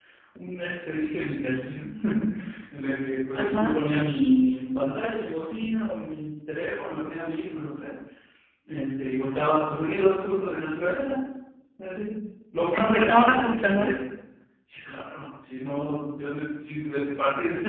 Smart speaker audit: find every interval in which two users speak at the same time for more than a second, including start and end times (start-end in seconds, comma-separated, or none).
12.6-13.9